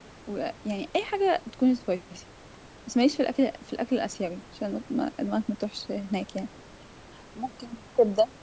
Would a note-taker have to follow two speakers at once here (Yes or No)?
No